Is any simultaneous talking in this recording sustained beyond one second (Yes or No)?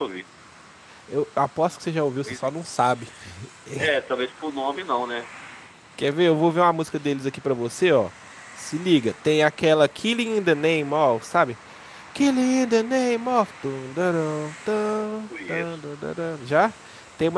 No